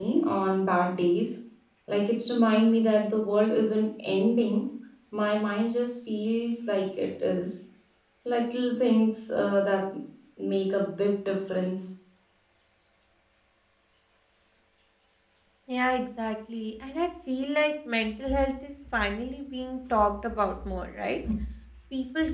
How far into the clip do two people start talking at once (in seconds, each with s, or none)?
none